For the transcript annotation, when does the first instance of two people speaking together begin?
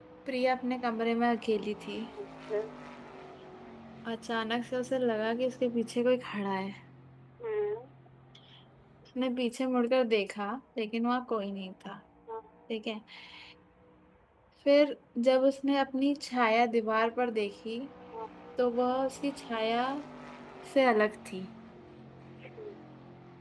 none

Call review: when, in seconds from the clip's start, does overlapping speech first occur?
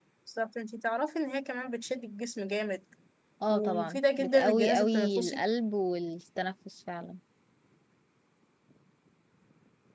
3.5 s

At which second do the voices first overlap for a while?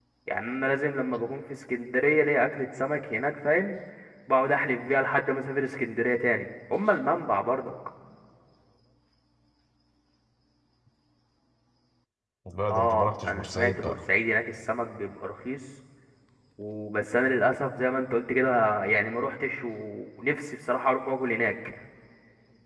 12.7 s

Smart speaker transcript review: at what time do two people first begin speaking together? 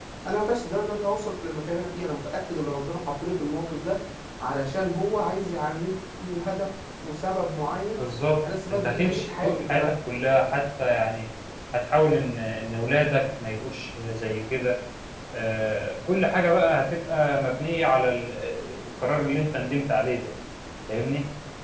8.7 s

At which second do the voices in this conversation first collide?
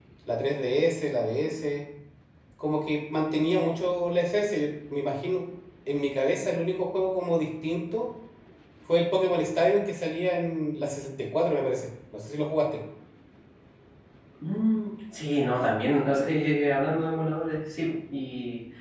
none

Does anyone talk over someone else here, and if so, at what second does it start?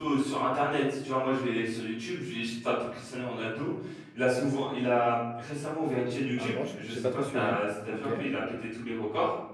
6.4 s

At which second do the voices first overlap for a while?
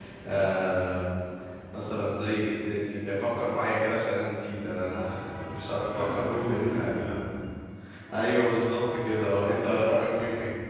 5.7 s

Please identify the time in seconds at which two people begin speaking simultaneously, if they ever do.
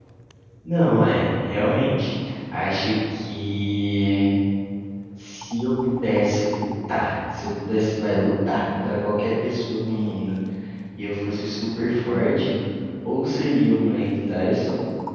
none

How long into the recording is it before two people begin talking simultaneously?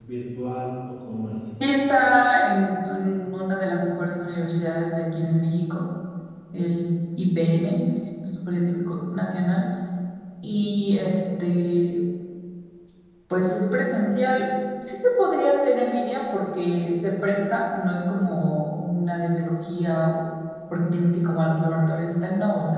none

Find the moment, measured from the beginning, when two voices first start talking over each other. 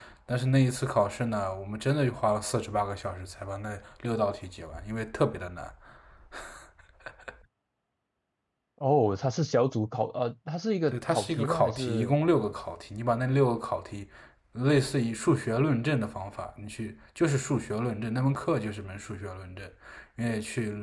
10.9 s

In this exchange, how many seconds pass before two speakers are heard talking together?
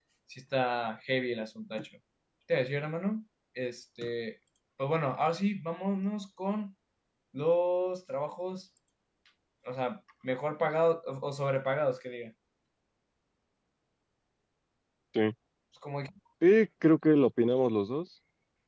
none

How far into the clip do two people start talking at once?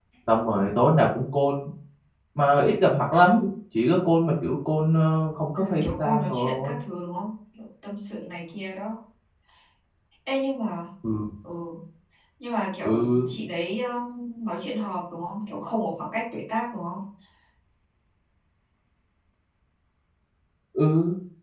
5.6 s

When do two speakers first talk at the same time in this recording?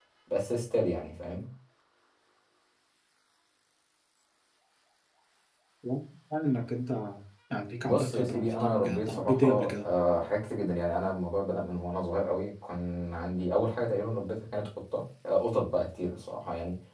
7.8 s

